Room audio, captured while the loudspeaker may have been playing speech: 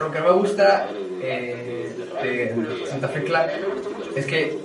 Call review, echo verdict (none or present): present